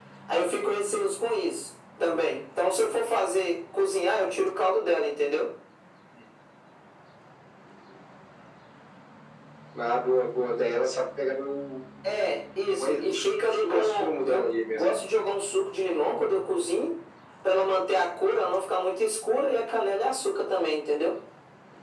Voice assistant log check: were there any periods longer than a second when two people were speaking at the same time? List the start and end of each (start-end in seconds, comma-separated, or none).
12.8-14.8